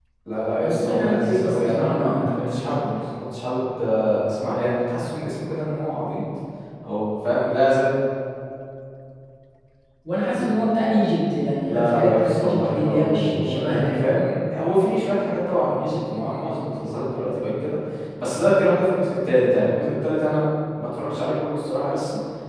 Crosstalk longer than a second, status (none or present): present